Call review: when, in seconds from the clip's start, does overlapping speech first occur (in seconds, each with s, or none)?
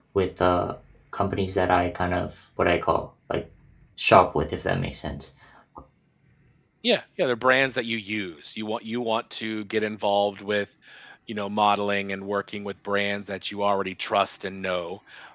none